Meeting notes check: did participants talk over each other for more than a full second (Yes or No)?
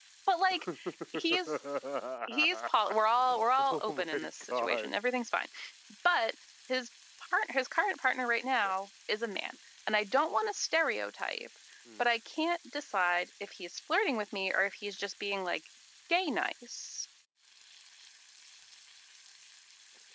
Yes